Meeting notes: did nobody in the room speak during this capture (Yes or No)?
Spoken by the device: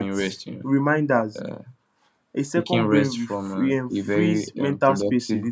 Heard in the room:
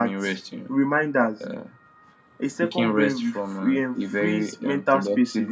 Yes